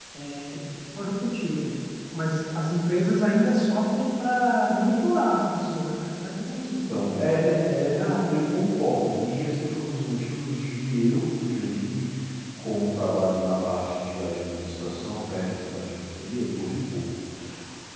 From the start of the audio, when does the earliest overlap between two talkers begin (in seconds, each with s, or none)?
6.5 s